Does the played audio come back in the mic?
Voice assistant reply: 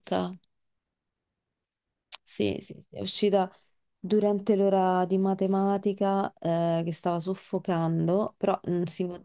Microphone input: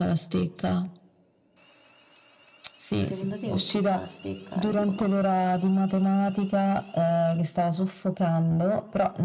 Yes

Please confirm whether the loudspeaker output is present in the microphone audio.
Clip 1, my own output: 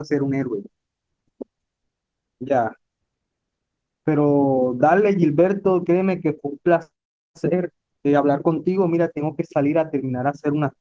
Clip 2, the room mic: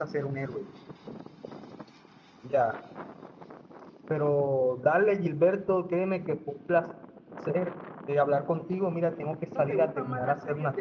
Yes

